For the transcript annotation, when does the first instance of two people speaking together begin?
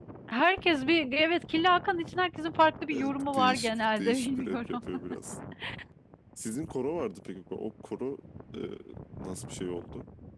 2.9 s

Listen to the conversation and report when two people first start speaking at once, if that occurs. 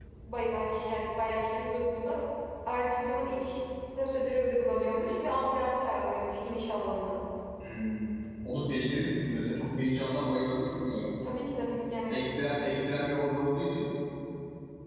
none

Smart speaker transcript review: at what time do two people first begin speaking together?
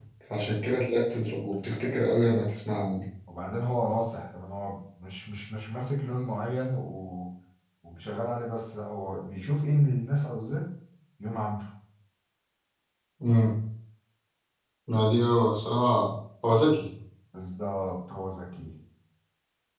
none

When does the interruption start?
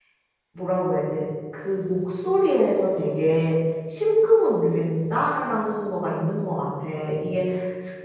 none

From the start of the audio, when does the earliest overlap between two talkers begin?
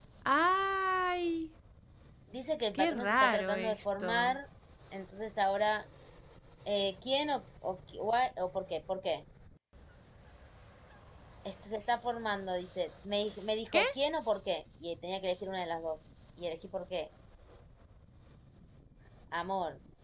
2.7 s

